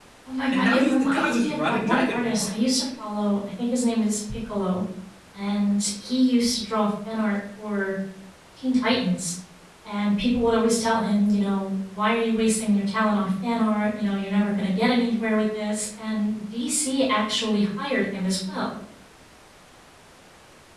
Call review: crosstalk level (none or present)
present